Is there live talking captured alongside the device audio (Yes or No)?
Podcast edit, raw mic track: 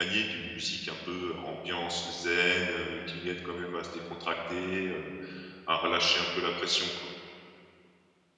Yes